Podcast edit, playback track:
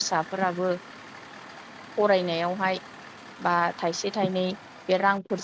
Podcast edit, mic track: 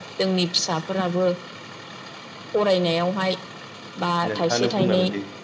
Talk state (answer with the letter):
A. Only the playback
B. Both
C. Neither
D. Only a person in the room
B